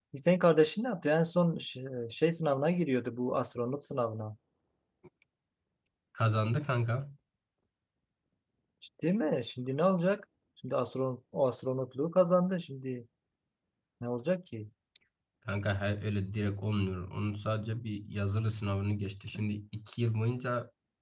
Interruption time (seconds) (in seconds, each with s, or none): none